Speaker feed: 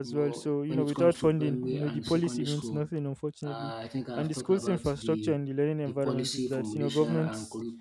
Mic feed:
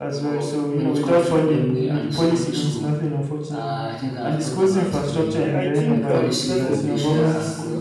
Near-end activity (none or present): present